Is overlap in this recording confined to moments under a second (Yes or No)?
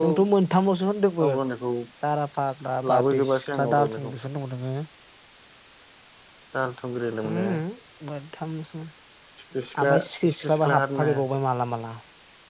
No